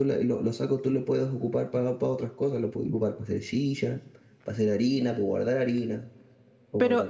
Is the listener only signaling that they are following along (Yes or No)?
No